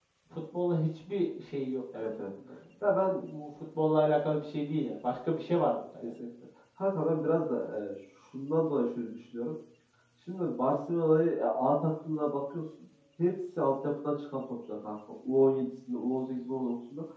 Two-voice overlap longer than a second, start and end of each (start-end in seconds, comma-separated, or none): none